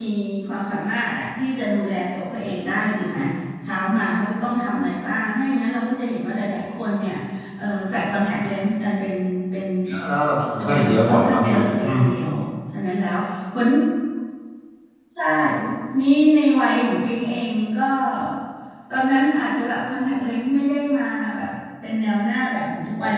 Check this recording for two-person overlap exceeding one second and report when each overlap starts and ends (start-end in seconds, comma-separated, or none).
10.6-12.0